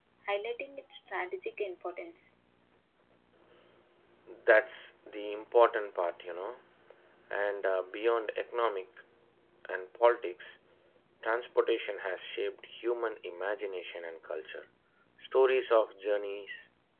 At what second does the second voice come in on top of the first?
none

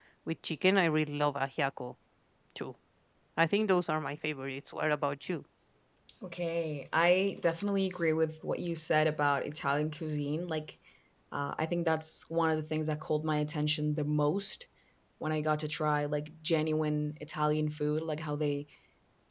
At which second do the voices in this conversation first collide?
none

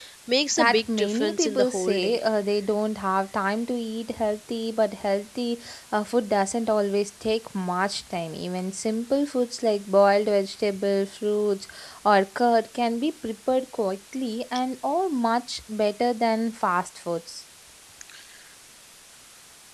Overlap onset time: 0.6 s

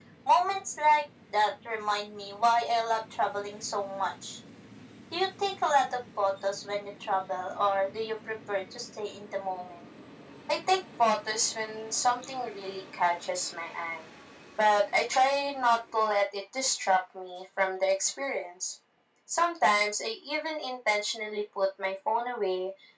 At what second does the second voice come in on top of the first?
none

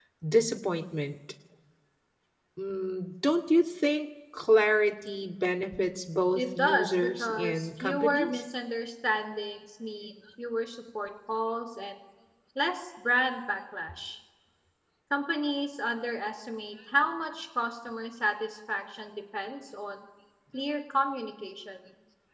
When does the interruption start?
6.3 s

